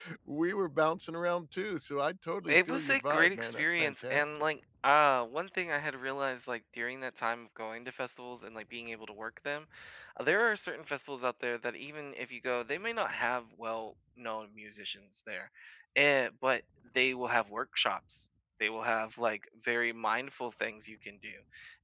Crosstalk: present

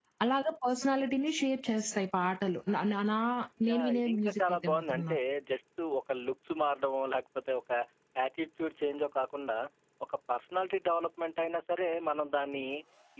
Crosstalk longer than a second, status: present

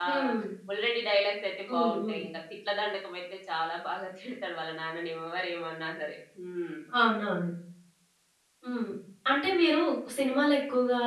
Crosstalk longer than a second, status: none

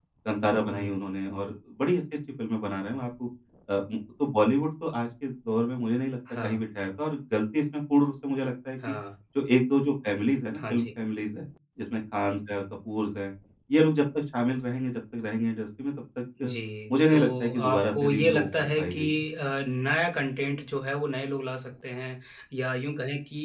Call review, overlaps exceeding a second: present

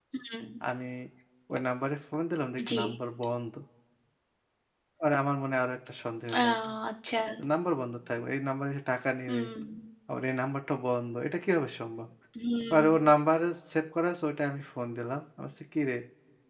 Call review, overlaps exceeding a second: none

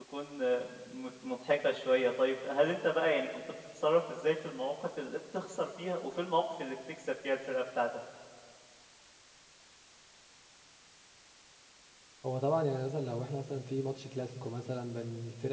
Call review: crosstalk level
none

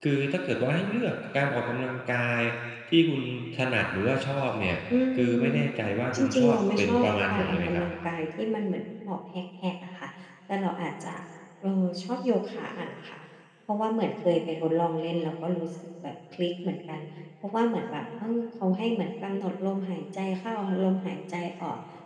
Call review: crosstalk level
present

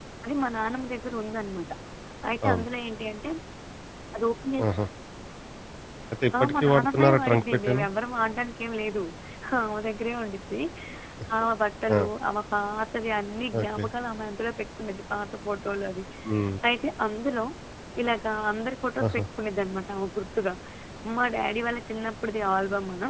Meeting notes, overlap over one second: present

